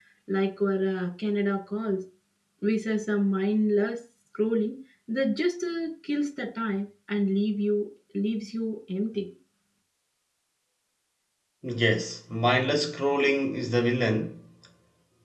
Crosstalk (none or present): none